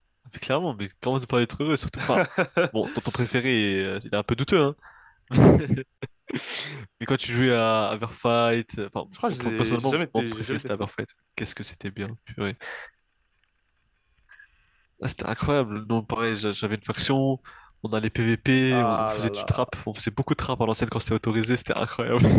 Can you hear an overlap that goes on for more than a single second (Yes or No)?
Yes